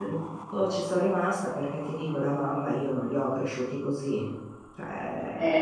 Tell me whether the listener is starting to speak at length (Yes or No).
Yes